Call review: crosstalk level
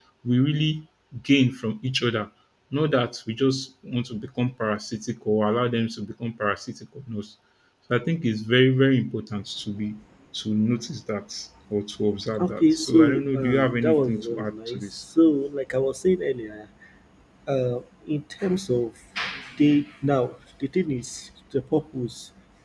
present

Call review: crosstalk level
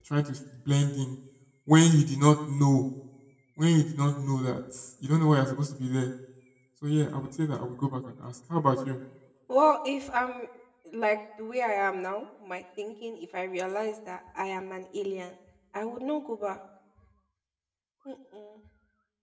none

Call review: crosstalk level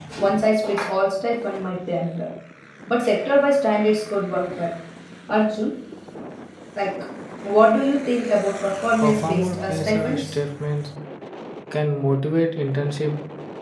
present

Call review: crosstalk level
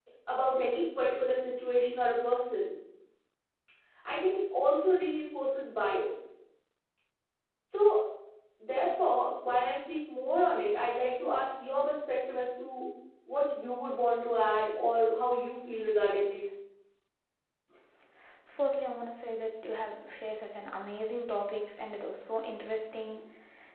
none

